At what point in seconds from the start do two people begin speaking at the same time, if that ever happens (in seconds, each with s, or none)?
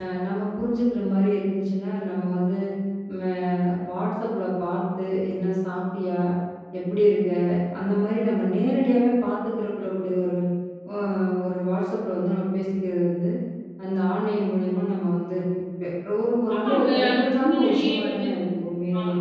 16.5 s